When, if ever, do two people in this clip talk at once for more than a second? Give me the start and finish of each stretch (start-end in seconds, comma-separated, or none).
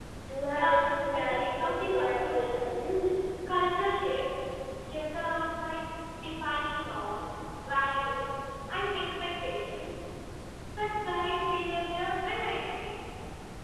0.5-2.8